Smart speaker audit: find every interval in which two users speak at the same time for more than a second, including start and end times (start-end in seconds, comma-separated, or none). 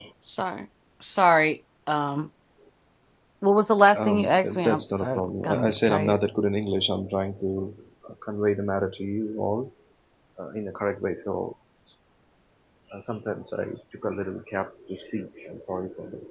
4.0-6.2